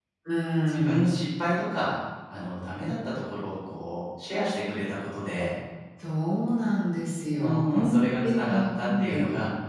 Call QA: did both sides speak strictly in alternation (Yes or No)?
No